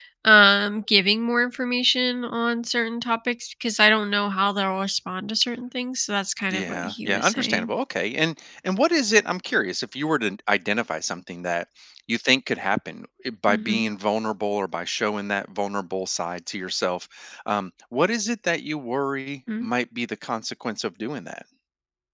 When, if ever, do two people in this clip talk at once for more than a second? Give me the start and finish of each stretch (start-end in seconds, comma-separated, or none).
6.5-7.7